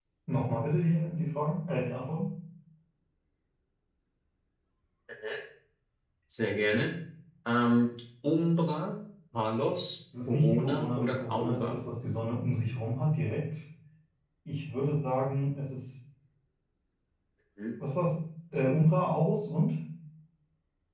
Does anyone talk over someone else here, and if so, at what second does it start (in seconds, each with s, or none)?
10.1 s